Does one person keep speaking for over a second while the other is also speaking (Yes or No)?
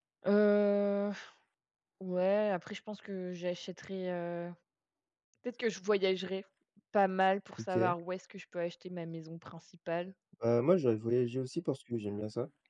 No